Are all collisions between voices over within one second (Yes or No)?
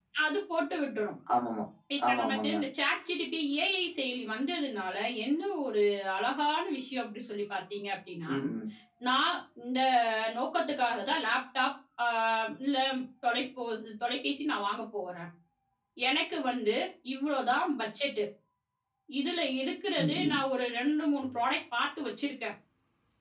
Yes